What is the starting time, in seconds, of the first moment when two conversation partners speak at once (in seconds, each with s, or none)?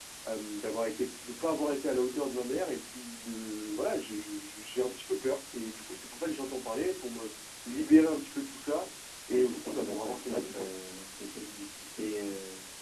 9.3 s